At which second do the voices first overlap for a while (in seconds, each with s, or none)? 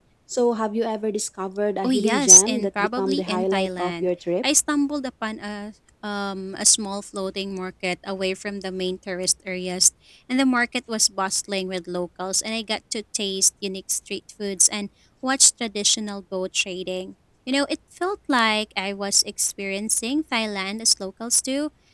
1.8 s